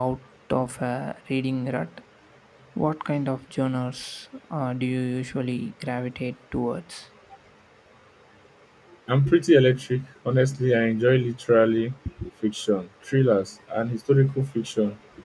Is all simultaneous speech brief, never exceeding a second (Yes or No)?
Yes